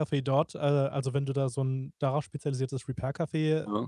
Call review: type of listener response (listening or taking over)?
listening